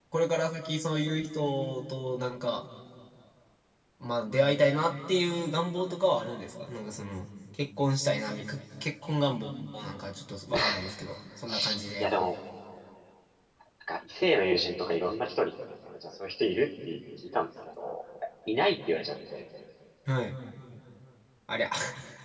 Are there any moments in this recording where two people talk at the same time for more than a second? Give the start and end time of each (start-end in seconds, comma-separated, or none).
none